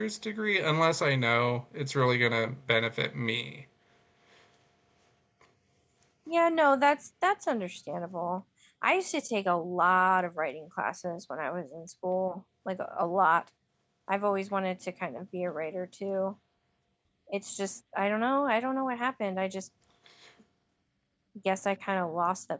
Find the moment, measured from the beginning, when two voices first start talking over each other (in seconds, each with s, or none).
none